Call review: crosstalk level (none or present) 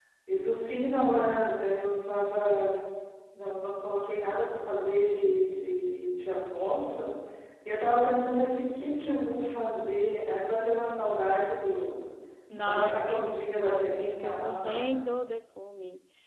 present